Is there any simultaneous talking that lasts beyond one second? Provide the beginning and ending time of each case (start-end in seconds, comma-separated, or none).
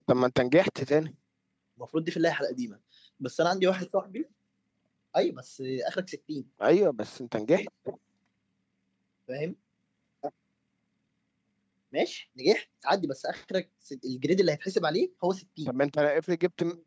none